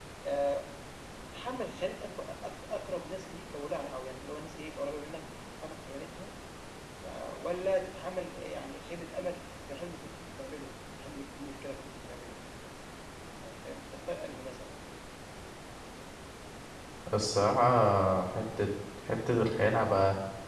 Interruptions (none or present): none